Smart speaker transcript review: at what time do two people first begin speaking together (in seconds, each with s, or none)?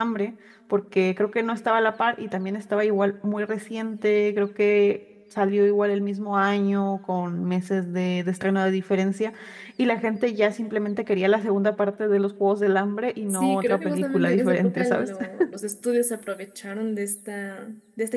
13.3 s